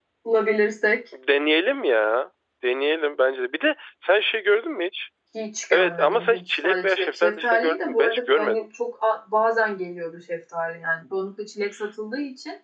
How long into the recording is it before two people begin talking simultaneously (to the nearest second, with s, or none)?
6 s